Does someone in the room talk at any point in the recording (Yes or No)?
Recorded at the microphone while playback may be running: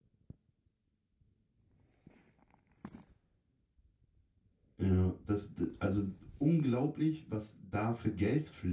Yes